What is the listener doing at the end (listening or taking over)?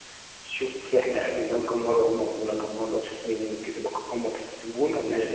taking over